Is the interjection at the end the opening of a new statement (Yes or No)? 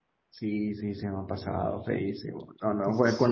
No